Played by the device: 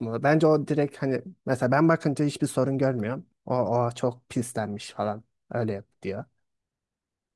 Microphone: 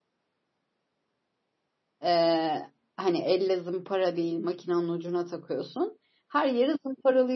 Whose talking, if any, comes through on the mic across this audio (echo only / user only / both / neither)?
user only